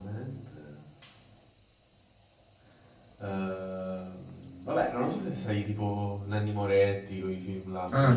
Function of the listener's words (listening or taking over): taking over